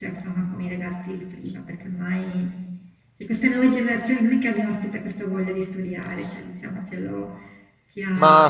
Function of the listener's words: taking over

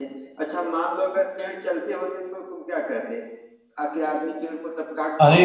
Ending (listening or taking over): taking over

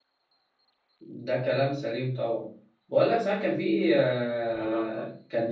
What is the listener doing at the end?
listening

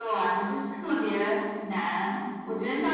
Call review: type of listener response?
listening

